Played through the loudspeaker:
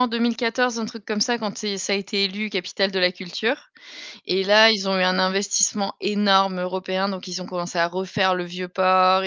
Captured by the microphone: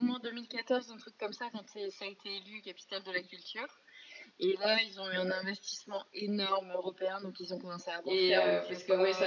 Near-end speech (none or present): present